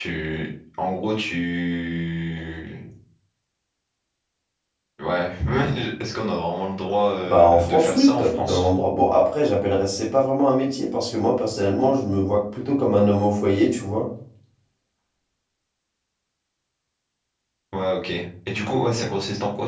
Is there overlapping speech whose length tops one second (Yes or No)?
Yes